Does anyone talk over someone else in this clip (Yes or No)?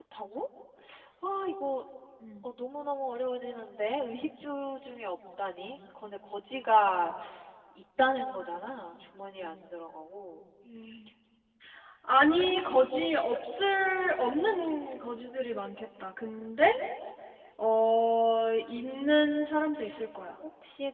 No